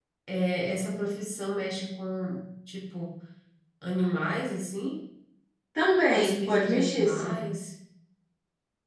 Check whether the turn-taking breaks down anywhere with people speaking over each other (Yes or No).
Yes